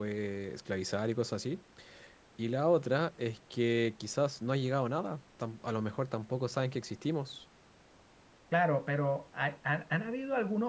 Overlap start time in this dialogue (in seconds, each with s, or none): none